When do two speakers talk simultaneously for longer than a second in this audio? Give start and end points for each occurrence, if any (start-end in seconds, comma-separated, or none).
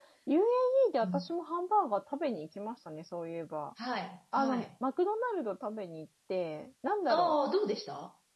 none